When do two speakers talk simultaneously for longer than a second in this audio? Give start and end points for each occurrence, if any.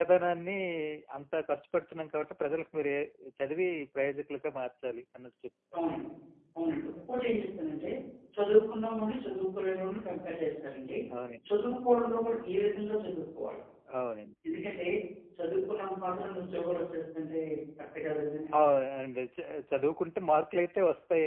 none

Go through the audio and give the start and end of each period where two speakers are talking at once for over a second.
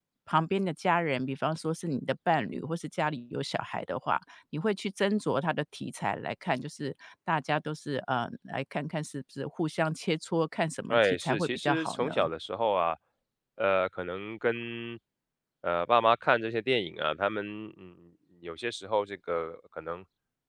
10.9-12.3

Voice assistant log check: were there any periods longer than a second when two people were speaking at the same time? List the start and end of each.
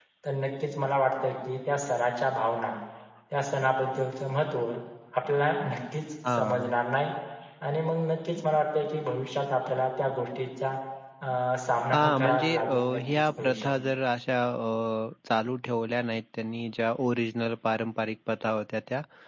11.9-13.8

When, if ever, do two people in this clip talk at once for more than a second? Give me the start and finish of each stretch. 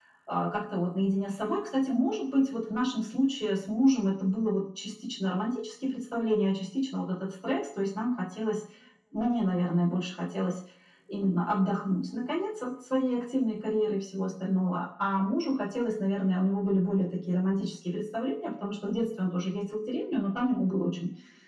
none

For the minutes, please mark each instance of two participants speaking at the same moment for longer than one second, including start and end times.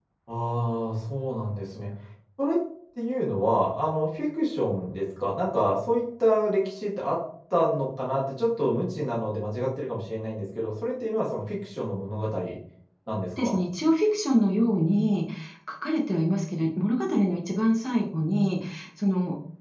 none

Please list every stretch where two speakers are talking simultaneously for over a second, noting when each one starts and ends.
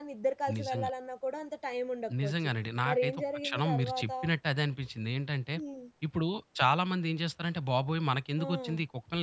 2.9-4.1

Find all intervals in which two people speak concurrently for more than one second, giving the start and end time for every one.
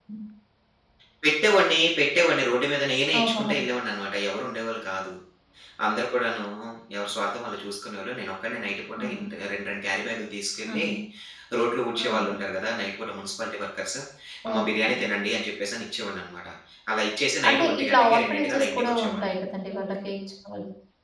17.5-19.3

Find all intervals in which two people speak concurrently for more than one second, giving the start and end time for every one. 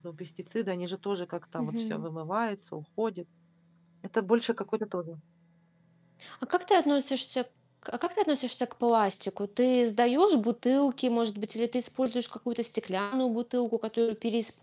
none

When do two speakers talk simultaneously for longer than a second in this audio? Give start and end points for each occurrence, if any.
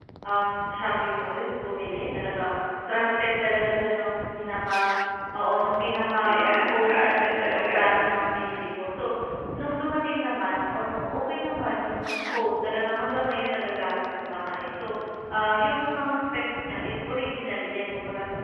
6.3-8.0

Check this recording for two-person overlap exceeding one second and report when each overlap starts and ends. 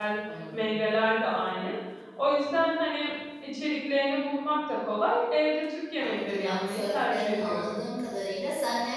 6.0-7.8

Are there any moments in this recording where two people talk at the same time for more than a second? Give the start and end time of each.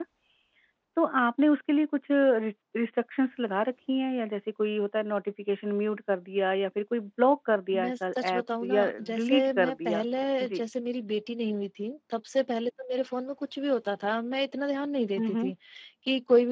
7.7-10.0

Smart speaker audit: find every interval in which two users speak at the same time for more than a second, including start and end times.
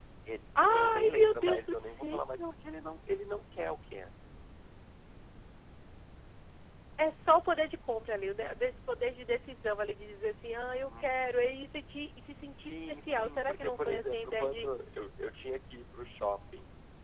0.7-2.2, 12.6-14.7

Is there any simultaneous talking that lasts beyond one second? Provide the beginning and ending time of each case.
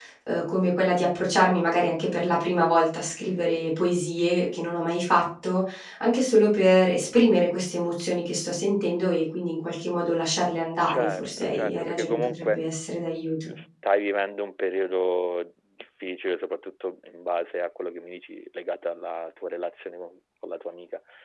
10.9-12.6

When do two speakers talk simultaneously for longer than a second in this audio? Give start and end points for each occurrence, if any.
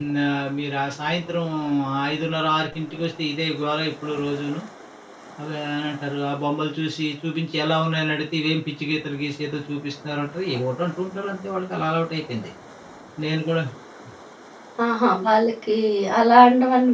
none

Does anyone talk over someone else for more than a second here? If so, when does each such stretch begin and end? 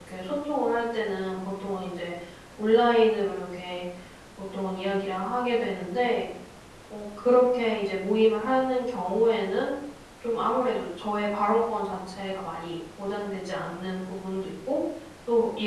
none

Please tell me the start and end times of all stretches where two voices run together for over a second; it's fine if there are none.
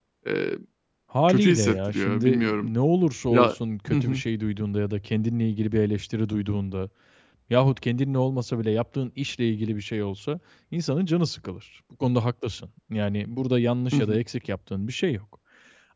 1.3-2.7

